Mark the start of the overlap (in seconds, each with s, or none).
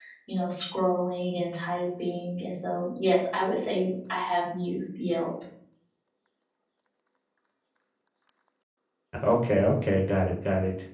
none